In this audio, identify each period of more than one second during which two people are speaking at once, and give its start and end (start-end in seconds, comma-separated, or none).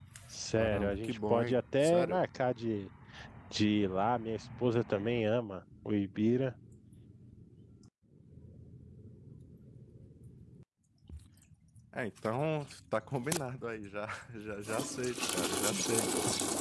0.6-2.2